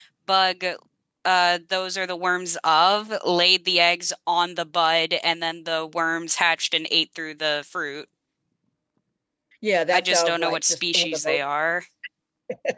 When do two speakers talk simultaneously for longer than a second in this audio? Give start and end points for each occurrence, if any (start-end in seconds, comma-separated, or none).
9.9-11.4